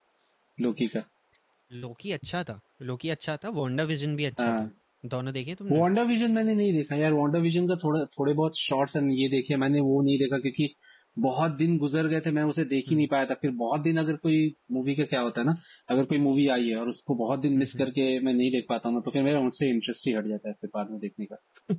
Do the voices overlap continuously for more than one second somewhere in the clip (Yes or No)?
No